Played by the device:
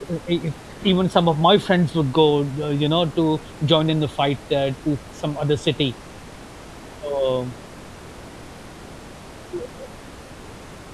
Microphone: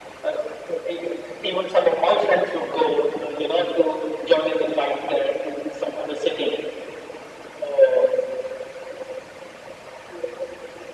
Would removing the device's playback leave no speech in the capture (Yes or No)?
Yes